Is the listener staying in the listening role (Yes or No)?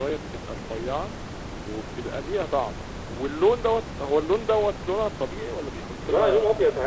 No